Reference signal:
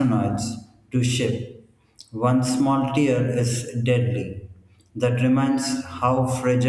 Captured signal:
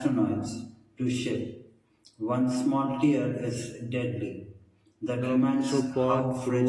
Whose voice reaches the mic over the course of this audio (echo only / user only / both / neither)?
both